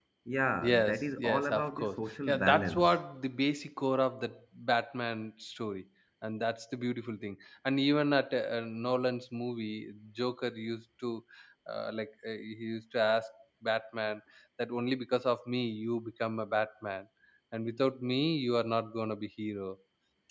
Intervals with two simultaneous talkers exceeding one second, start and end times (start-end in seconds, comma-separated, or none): 0.7-3.0